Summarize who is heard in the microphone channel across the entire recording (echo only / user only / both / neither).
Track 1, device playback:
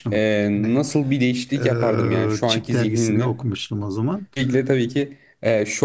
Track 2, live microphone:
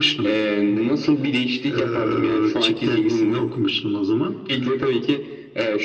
echo only